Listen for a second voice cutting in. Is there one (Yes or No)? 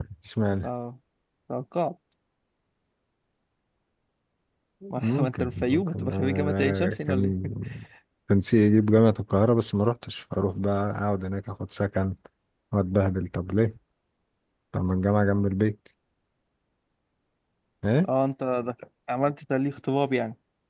Yes